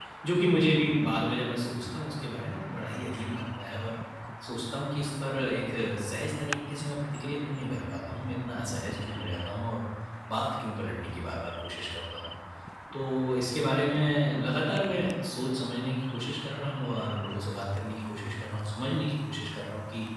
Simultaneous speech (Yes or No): No